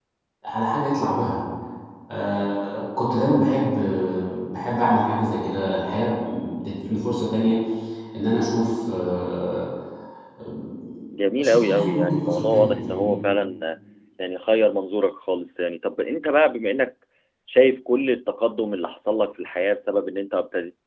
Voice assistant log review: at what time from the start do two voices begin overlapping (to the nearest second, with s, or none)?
11 s